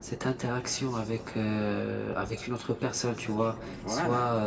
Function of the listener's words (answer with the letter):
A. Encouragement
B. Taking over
A